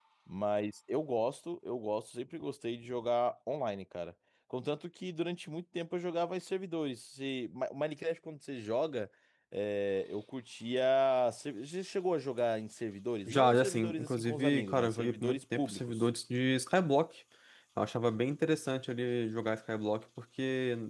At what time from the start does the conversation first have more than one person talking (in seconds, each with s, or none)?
13.3 s